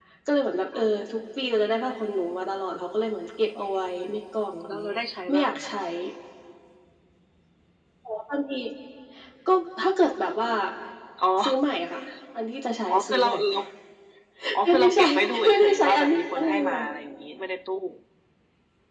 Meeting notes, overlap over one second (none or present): present